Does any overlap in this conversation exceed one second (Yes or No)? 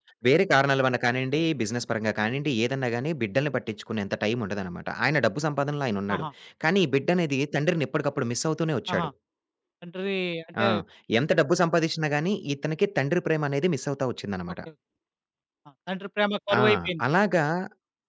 No